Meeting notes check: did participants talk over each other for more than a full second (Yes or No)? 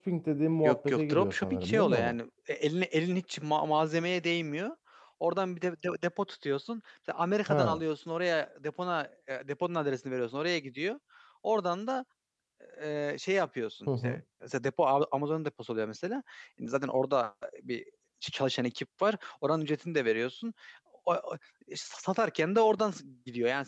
Yes